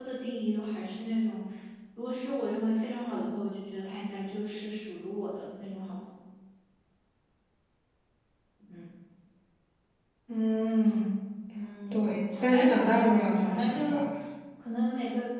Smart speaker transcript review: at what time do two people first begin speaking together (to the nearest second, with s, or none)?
12 s